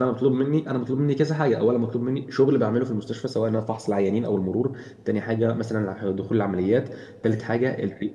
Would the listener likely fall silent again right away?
Yes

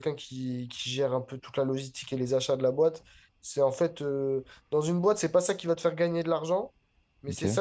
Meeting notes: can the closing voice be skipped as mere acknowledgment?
Yes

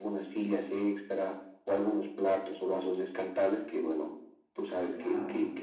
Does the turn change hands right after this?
No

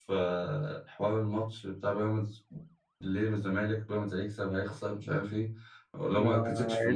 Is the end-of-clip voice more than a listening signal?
Yes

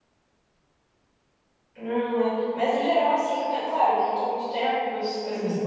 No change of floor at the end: Yes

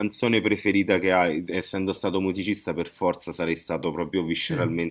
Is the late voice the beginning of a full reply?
No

